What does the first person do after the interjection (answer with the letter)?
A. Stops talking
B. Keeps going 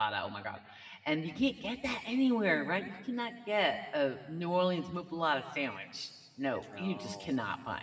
B